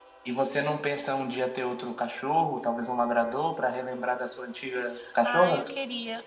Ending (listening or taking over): taking over